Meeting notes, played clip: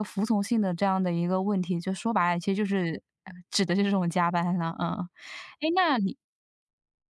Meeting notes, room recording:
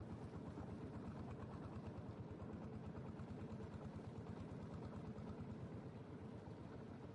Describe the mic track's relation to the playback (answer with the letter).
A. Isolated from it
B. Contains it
A